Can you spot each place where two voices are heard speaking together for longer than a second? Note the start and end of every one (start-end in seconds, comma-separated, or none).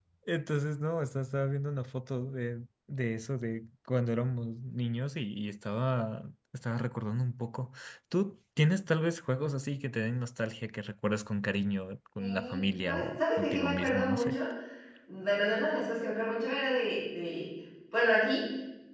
12.2-14.4